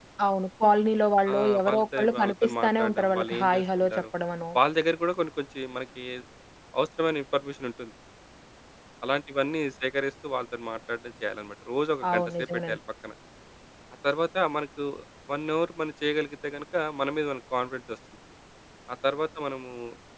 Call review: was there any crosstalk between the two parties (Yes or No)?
Yes